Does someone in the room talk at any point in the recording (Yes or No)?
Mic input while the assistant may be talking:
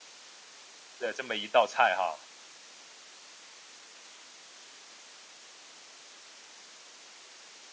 Yes